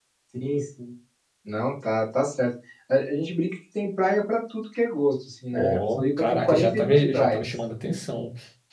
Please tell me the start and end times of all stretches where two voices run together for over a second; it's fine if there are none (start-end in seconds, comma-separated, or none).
5.6-7.5